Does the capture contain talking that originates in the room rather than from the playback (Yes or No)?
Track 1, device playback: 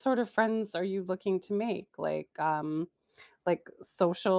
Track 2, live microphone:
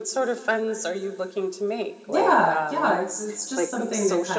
Yes